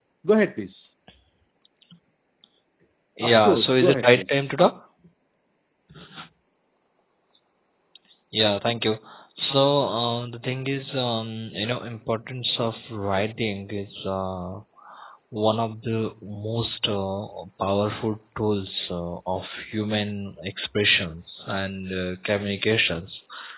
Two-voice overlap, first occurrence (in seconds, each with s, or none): 3.2 s